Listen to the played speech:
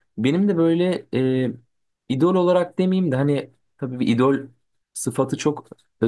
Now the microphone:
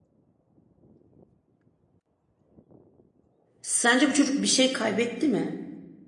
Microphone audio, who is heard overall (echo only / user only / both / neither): user only